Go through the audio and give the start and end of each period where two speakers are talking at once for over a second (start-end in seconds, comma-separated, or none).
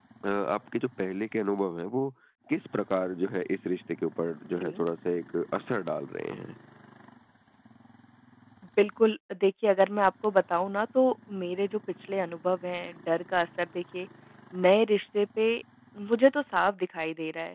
none